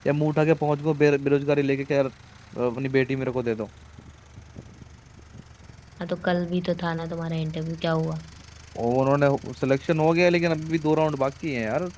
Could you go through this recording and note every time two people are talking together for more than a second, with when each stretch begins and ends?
none

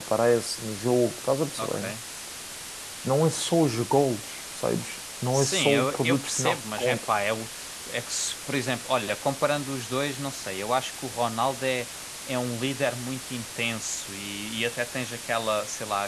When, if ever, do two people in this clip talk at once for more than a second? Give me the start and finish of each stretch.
5.3-7.0

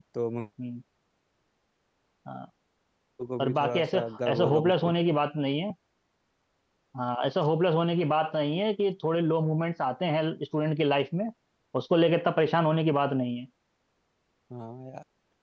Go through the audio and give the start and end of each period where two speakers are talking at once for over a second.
3.4-4.7

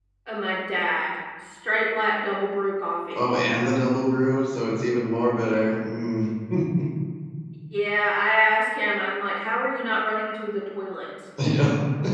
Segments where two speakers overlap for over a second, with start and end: none

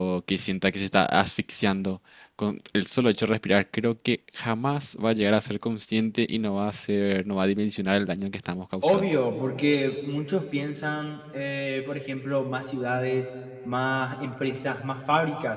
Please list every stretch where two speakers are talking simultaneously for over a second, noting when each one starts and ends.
none

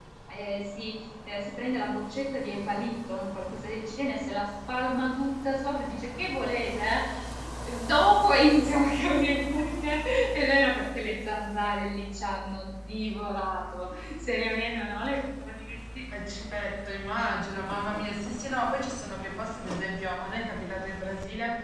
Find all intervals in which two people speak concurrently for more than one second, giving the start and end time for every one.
none

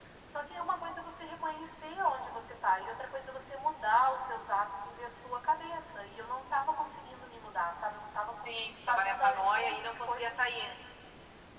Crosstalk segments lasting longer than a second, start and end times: 8.9-10.4

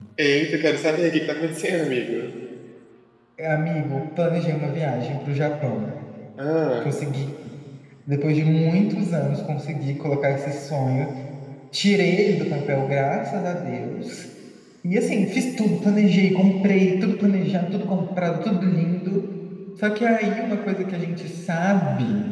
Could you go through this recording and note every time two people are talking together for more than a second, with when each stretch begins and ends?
none

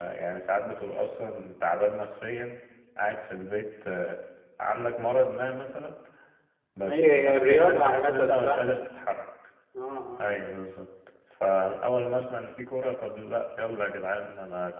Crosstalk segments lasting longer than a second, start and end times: 6.8-8.6

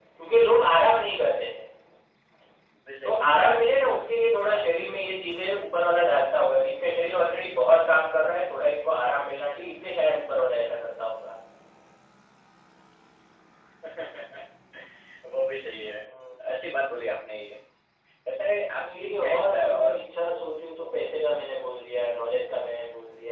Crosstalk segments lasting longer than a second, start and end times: 18.8-20.0

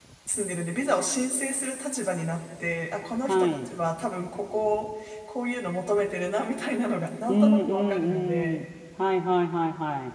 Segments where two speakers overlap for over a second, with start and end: 7.3-8.6

